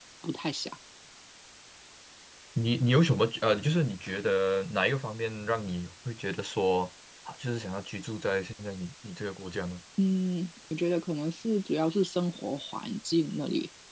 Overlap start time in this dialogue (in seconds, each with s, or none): none